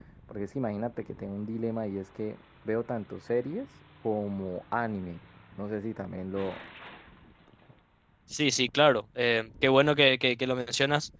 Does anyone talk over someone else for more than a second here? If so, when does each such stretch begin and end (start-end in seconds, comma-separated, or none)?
none